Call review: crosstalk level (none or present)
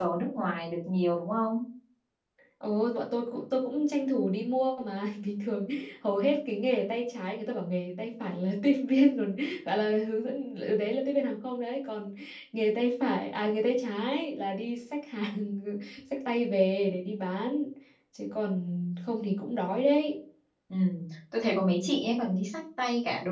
none